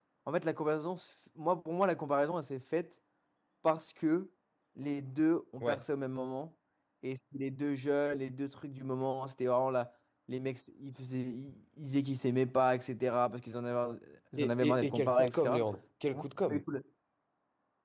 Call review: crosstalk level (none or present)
present